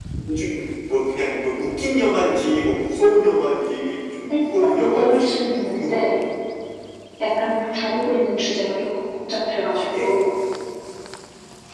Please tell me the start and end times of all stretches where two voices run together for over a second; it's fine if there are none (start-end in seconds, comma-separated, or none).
4.3-6.2